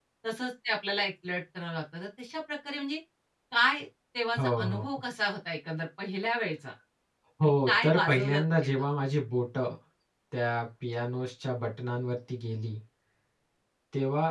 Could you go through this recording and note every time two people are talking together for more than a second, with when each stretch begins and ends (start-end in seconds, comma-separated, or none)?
7.4-8.8